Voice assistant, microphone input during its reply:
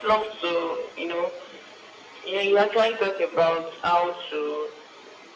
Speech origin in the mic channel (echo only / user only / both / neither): echo only